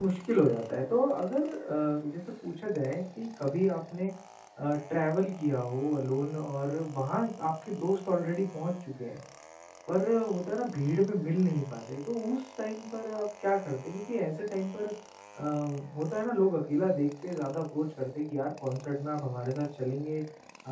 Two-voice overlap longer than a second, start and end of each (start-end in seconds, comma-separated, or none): none